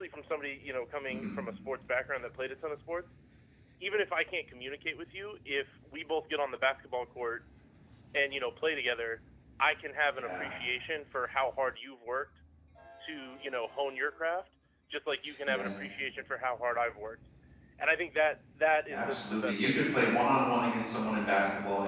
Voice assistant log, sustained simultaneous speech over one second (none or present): present